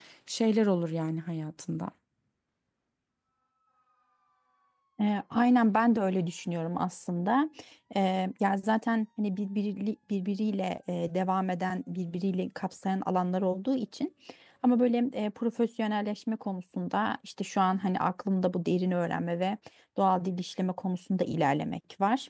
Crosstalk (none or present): none